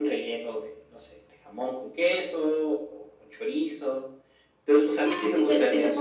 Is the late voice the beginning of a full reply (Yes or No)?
Yes